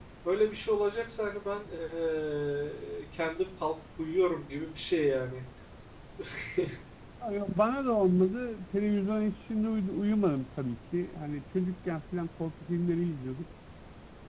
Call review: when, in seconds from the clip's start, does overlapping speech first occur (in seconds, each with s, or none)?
none